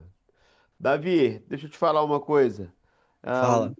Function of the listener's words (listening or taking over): listening